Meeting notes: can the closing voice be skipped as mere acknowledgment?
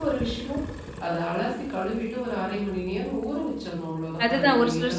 No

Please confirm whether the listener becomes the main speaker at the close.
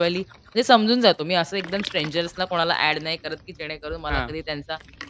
No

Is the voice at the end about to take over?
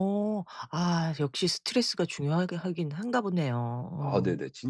Yes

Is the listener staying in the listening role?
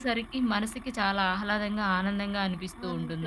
No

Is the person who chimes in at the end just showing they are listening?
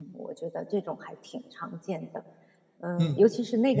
No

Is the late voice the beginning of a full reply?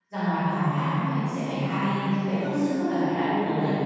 Yes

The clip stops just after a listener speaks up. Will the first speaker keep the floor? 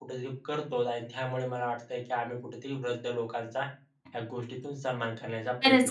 No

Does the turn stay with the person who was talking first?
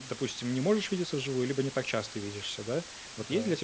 Yes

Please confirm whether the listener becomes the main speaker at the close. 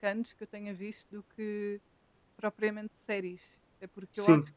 No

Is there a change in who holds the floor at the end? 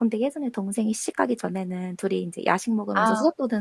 No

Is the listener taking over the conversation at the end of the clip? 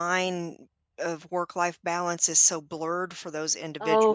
Yes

